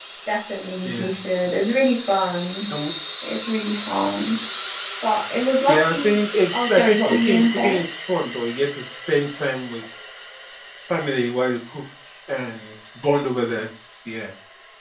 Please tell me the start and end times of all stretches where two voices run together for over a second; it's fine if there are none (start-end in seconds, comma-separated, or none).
5.7-7.8